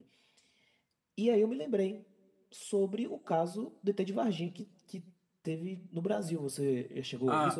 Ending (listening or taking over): taking over